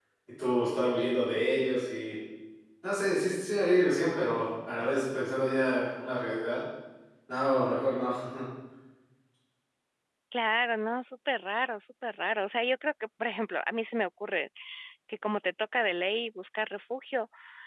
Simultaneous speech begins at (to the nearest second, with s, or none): none